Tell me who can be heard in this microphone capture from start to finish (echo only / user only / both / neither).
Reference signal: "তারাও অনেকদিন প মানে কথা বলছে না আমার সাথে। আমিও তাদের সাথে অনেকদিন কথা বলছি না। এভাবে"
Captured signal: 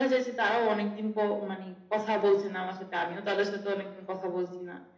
echo only